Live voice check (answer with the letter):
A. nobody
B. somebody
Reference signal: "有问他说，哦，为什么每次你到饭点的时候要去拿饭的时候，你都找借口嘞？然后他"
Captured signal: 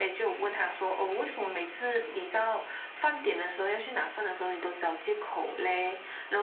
A